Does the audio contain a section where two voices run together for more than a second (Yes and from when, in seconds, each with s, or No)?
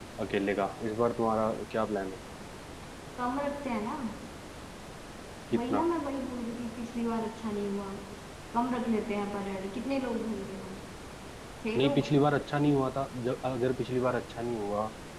No